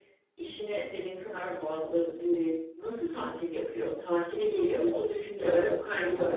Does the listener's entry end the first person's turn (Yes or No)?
Yes